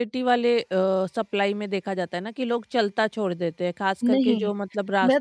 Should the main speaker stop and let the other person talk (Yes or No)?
Yes